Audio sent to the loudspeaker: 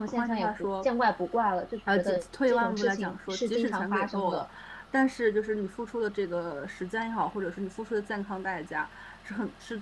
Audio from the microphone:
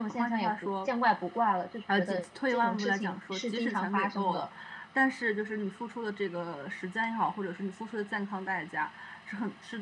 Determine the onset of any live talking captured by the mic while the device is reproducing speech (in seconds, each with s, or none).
none